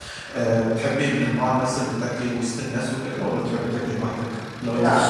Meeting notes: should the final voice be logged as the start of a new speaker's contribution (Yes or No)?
Yes